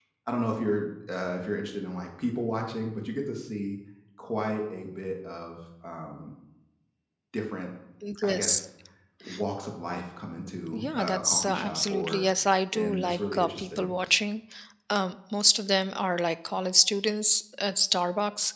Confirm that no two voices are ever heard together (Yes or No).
No